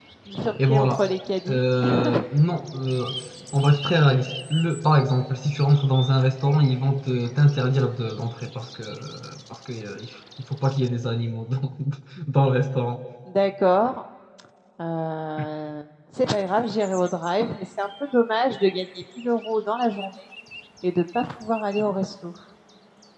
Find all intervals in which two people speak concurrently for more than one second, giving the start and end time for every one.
none

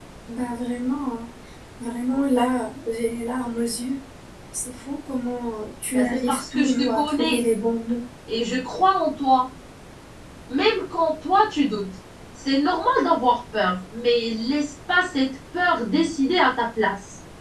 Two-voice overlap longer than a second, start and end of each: 5.9-7.4

